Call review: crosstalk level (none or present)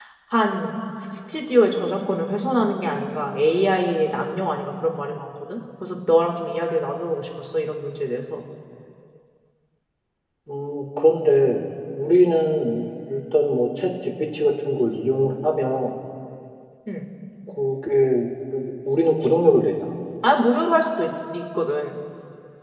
none